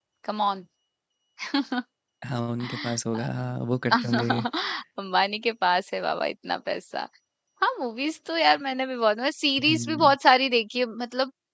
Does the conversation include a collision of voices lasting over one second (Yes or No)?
No